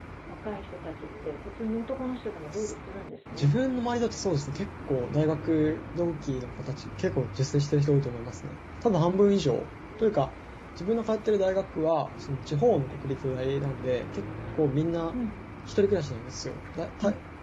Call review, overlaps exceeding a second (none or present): none